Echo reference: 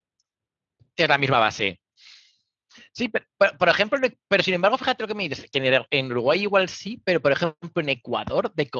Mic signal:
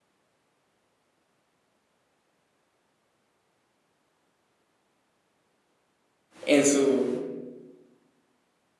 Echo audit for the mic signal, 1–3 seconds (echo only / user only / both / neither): neither